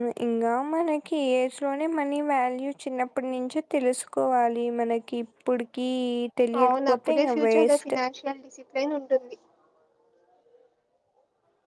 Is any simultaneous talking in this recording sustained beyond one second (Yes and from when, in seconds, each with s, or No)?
Yes, from 6.6 s